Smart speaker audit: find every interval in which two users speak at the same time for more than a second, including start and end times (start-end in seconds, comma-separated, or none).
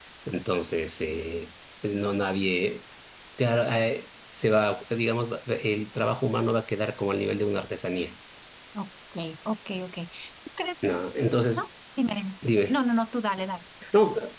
none